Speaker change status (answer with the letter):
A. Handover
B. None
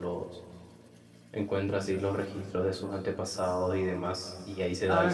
A